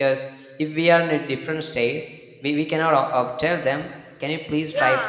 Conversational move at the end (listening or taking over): taking over